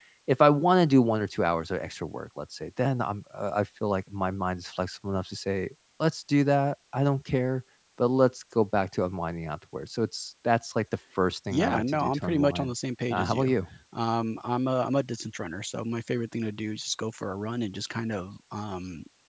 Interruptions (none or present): present